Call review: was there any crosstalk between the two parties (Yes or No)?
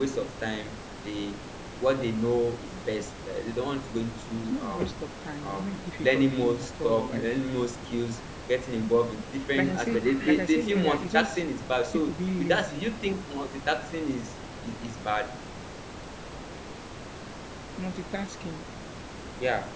Yes